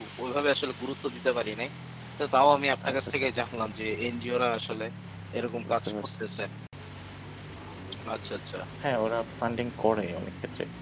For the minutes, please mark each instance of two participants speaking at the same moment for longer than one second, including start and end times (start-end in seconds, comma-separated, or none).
none